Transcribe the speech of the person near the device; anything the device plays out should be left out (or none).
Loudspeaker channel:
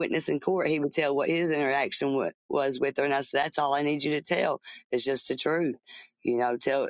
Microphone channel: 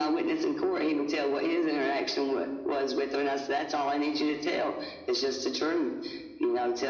none